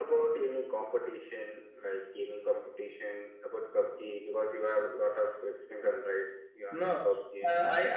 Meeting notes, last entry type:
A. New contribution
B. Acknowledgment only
A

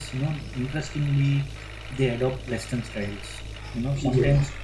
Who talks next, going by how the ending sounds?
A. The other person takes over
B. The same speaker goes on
B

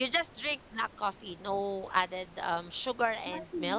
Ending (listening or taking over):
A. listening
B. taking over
B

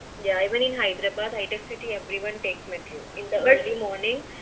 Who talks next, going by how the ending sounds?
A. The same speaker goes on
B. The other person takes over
A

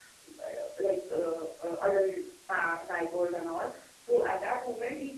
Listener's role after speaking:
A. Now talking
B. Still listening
B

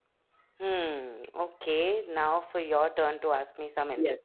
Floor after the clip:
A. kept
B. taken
B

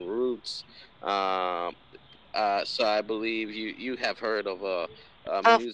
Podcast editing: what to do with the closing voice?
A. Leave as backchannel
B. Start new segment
B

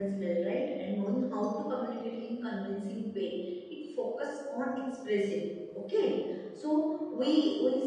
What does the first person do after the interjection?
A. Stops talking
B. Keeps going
B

